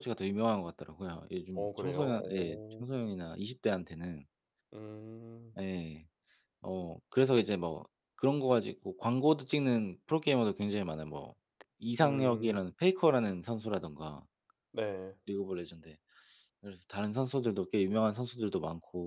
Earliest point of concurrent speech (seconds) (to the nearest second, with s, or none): 2 s